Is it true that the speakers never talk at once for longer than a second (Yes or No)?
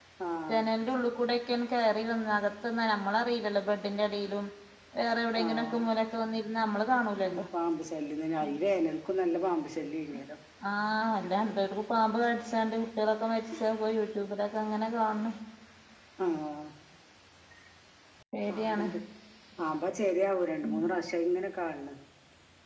Yes